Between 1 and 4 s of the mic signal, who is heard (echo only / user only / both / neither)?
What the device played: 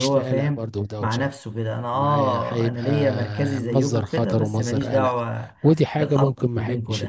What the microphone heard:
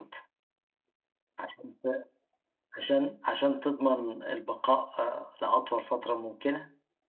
user only